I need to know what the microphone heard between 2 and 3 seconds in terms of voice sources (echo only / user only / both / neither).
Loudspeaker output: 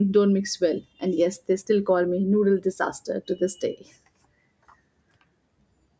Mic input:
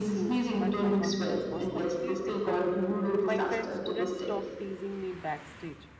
both